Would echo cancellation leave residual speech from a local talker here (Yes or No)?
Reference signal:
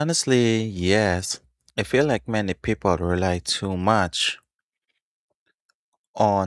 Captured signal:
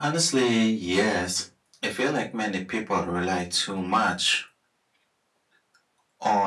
No